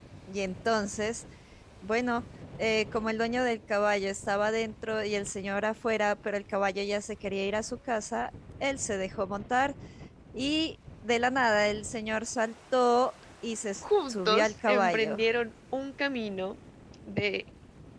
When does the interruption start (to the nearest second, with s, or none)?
14 s